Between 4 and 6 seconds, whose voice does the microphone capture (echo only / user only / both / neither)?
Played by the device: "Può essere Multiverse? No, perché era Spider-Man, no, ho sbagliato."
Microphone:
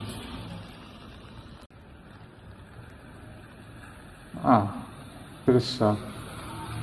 user only